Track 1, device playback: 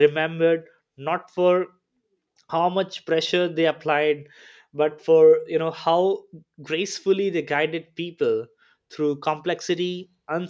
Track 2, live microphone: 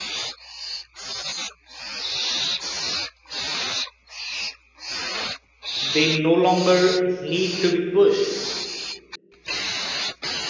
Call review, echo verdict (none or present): none